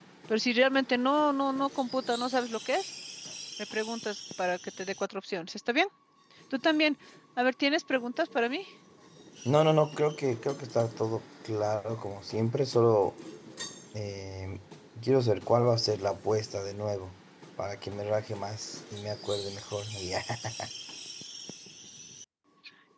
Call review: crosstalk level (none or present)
none